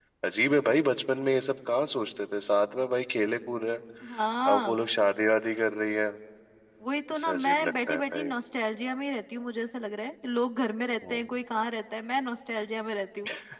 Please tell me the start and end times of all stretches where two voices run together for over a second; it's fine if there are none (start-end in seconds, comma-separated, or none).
7.1-8.3